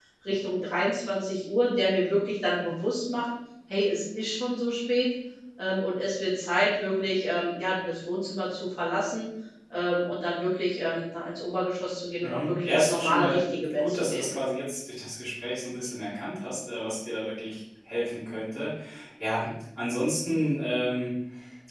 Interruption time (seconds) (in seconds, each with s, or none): 12.2 s